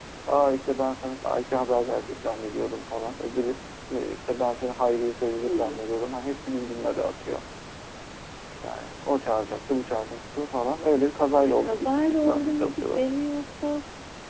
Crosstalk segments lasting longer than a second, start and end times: 11.4-13.0

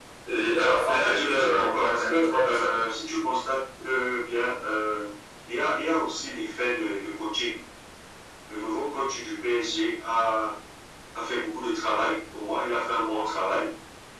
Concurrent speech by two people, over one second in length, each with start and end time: 0.8-2.8

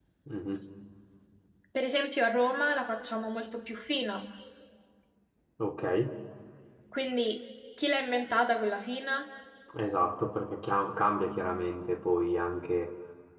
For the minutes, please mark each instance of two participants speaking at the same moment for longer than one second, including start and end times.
none

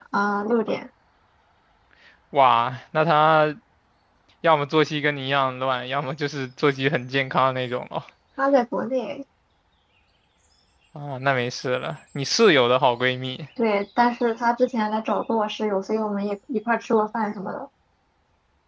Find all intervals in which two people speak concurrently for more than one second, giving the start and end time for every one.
none

